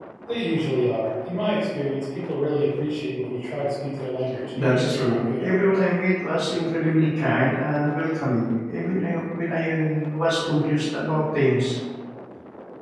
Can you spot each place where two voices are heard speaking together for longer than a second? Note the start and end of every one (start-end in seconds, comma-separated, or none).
4.5-5.8